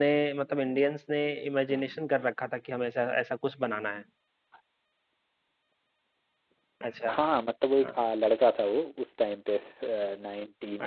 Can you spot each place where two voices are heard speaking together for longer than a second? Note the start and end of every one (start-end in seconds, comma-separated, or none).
none